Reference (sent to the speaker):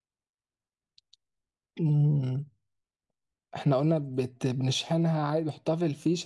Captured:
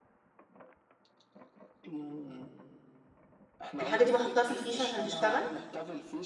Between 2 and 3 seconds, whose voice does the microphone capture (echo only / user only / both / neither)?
echo only